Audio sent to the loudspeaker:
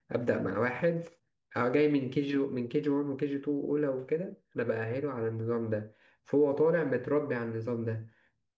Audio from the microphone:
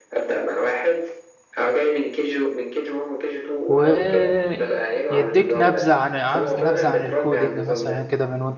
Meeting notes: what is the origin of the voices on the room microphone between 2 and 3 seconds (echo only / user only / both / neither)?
echo only